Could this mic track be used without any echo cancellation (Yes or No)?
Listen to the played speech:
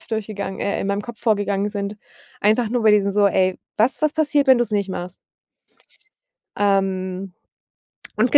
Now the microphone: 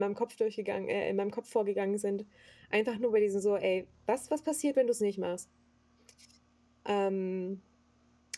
No